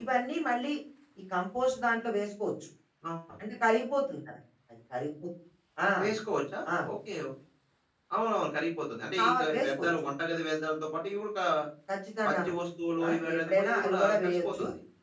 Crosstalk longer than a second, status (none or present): present